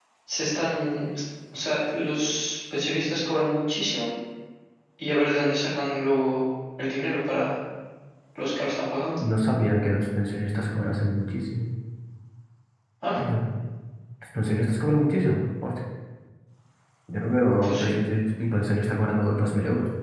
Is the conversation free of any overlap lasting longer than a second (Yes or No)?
Yes